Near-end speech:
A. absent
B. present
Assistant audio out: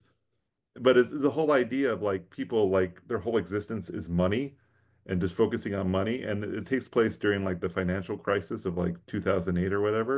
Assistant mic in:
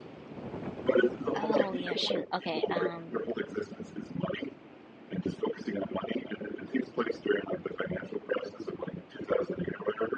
B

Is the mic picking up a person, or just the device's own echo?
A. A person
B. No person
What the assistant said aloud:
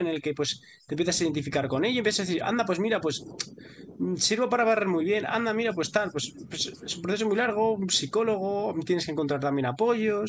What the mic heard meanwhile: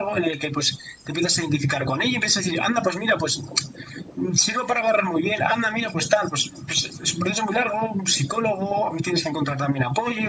B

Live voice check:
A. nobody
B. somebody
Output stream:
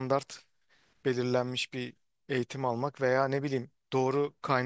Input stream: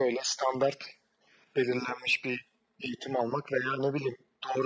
A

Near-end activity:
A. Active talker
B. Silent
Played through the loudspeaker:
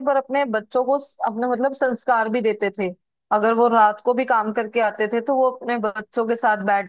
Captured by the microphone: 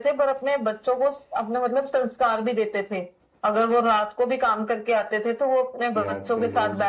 A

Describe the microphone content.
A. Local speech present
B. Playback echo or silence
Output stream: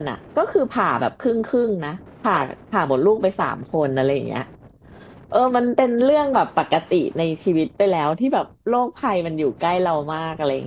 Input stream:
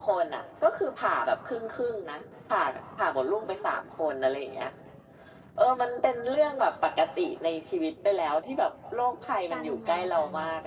A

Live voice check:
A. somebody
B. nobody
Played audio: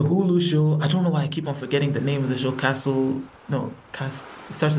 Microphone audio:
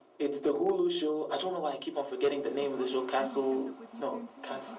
A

